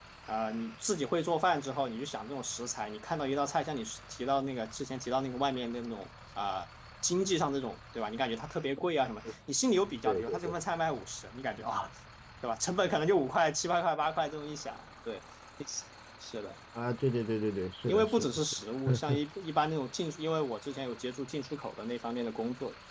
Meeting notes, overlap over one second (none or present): present